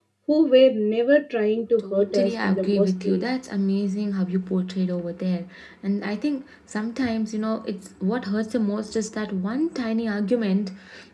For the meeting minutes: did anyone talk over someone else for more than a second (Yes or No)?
Yes